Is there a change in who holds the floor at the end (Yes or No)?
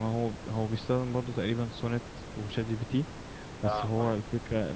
No